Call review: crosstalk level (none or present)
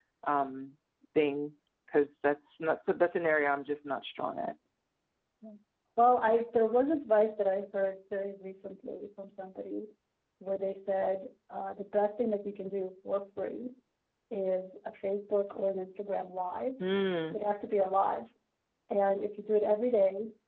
none